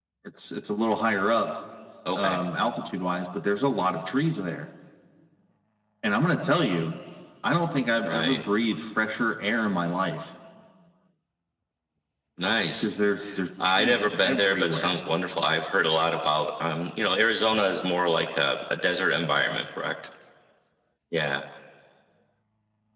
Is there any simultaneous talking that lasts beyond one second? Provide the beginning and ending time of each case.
13.6-15.0

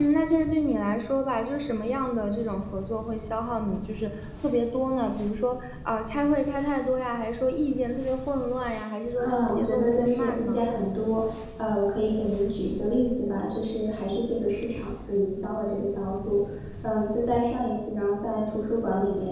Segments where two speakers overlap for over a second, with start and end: 9.2-10.6

